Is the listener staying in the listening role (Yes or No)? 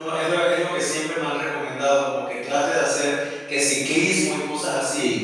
Yes